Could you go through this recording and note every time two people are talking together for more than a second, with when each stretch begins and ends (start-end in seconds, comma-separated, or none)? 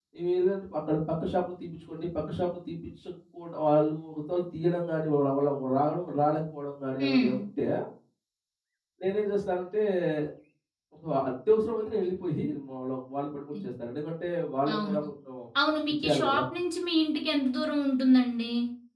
none